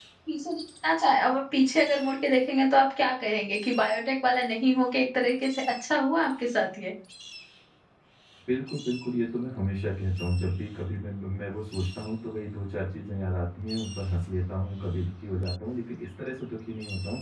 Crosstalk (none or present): none